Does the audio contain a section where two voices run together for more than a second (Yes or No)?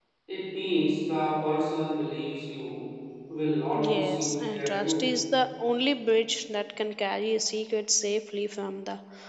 Yes